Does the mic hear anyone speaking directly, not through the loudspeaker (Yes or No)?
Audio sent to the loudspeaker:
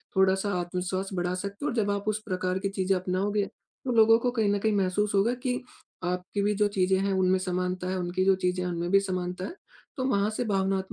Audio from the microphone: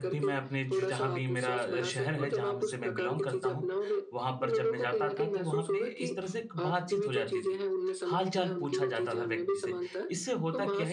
Yes